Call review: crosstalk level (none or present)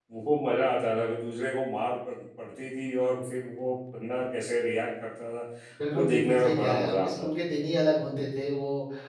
present